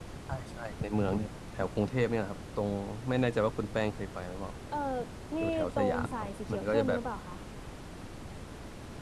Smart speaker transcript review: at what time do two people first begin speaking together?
5.4 s

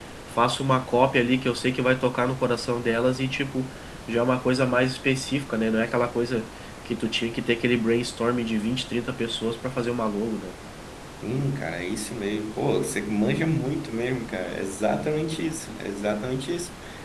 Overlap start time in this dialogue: none

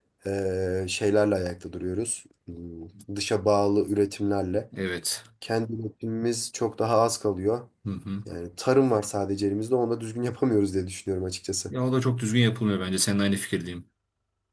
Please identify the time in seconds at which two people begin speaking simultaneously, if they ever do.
none

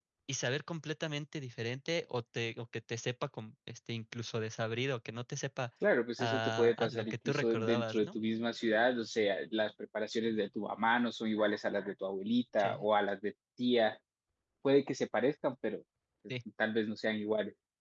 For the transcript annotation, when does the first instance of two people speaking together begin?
6.2 s

